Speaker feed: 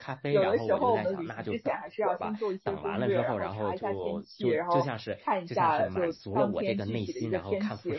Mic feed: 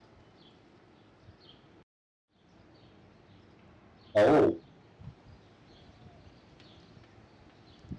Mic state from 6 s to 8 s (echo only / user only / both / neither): neither